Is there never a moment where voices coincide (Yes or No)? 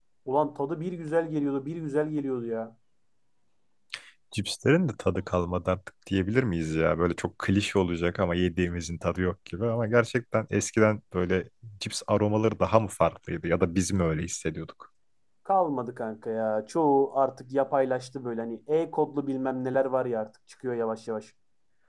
Yes